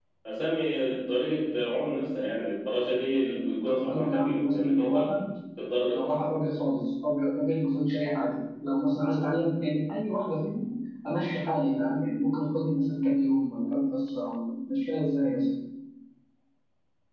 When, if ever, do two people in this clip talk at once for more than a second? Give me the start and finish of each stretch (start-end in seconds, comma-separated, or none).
3.7-5.0